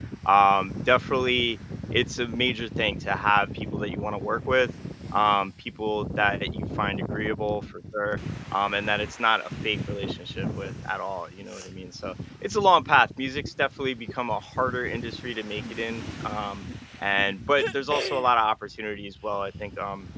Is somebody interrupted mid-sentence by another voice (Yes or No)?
No